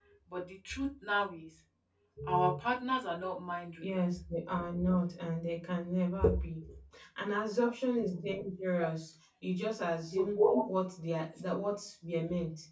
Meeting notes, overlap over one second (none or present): none